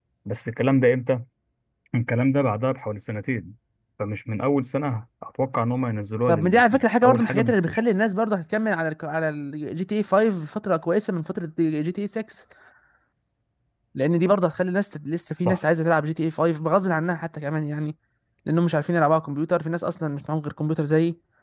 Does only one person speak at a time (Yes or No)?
No